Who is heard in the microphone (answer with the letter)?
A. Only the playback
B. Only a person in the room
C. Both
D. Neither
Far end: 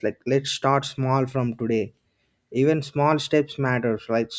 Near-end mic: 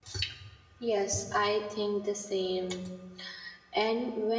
B